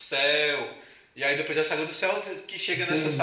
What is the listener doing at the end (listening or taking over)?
taking over